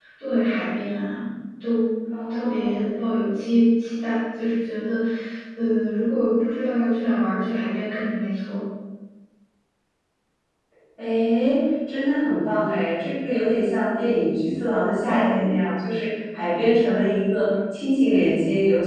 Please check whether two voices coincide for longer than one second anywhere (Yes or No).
No